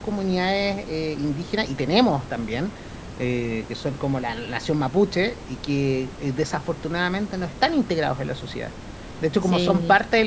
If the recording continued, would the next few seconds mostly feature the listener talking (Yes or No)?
No